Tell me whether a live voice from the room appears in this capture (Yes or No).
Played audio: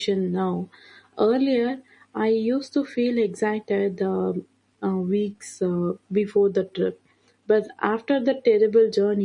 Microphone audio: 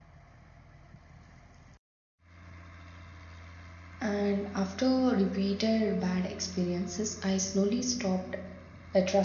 Yes